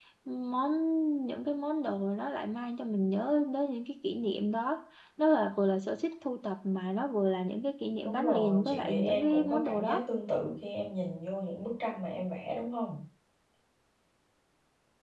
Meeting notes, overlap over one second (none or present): present